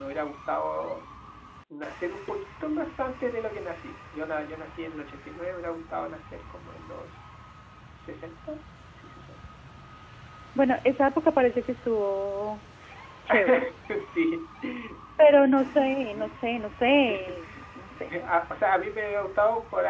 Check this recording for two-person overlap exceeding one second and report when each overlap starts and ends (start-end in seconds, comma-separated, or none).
none